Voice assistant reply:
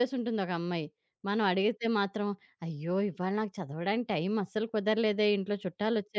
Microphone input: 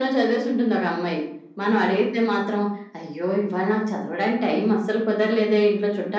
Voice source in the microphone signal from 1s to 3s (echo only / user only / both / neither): echo only